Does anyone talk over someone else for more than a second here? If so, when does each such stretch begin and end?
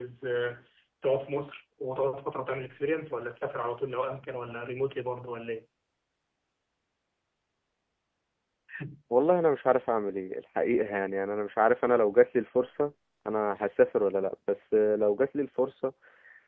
none

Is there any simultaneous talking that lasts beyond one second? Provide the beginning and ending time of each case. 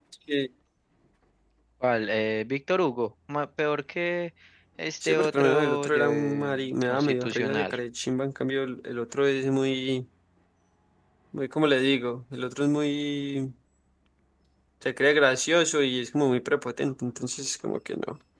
5.0-7.8

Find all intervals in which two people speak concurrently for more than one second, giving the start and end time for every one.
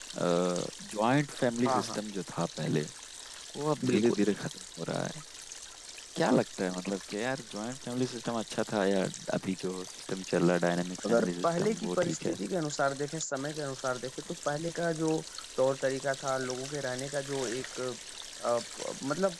11.0-12.4

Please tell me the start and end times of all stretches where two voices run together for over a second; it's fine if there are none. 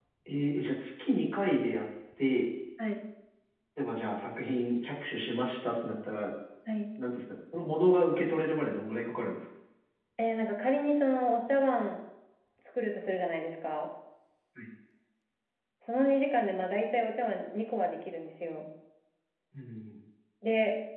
none

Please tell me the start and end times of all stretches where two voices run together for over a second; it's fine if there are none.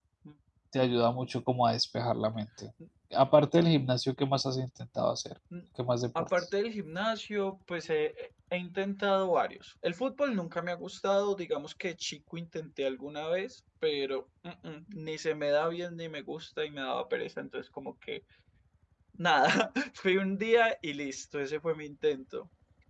none

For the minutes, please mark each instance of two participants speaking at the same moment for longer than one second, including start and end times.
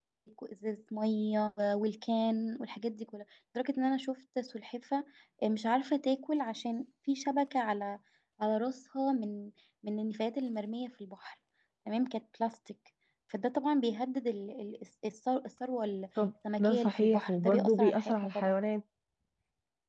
16.6-18.6

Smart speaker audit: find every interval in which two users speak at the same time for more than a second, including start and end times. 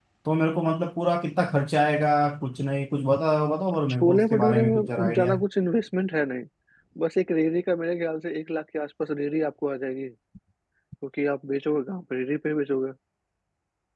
4.0-5.3

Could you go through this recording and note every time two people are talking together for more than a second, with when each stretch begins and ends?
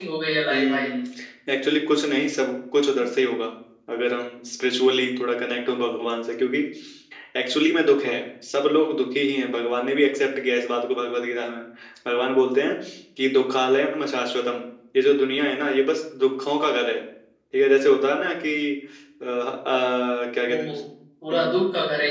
none

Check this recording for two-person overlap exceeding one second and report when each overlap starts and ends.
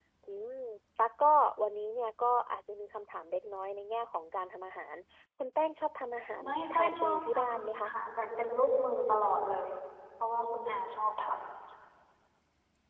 6.4-7.9

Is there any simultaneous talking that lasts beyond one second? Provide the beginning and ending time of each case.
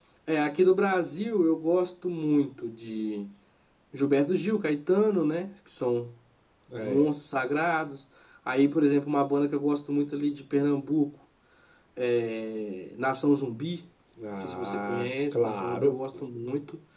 14.4-16.0

